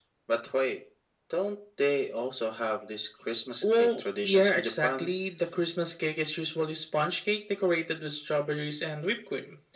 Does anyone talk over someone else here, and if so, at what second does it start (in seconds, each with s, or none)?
3.6 s